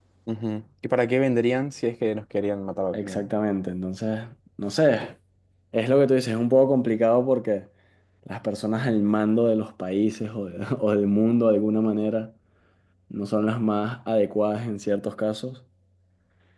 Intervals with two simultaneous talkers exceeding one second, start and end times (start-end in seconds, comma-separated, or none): none